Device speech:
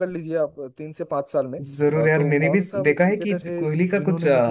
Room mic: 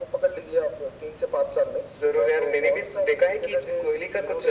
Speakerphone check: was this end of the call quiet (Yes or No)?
Yes